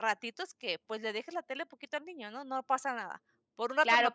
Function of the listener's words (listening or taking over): taking over